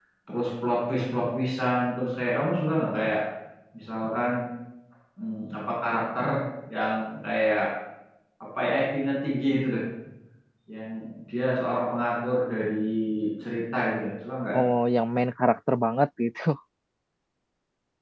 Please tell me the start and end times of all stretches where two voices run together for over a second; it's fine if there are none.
none

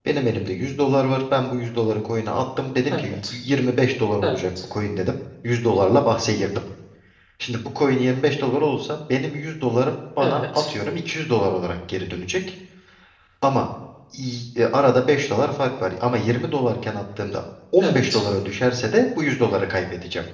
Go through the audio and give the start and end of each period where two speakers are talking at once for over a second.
none

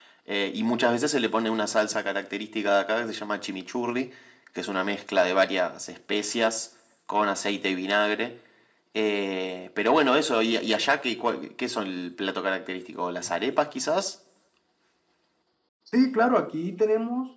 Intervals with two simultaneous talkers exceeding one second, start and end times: none

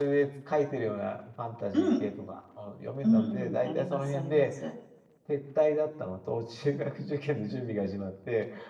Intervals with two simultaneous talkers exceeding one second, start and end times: 3.0-4.5

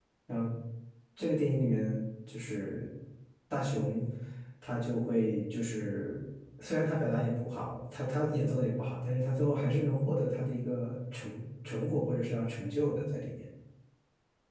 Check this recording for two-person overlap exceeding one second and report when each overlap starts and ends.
none

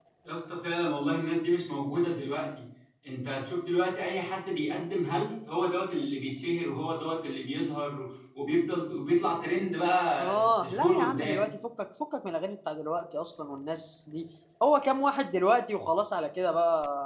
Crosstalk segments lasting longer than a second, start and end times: 10.2-11.4

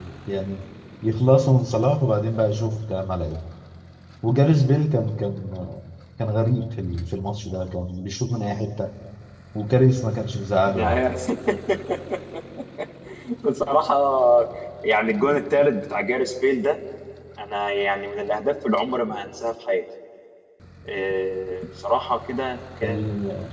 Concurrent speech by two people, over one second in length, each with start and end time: none

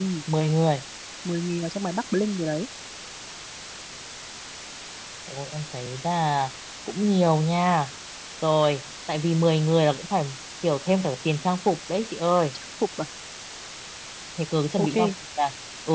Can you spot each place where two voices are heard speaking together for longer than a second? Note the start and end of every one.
none

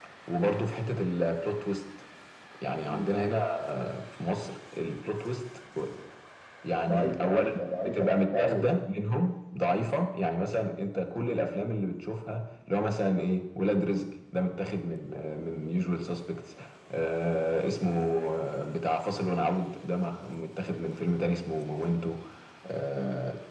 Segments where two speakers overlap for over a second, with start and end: 6.9-8.8

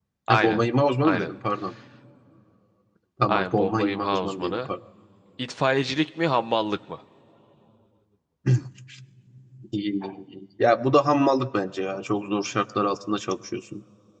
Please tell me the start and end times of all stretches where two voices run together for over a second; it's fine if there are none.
3.3-4.7

